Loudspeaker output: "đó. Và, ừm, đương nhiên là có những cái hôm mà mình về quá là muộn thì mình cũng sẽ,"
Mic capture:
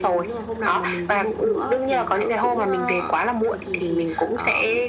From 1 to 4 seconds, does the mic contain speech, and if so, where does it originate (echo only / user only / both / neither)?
both